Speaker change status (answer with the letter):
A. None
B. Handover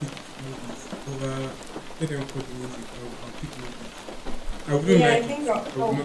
B